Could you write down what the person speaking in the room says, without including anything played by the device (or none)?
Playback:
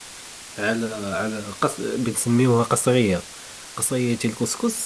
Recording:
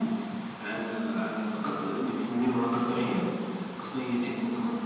none